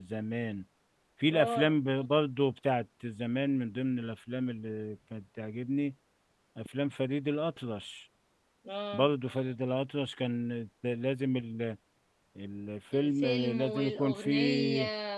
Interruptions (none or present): present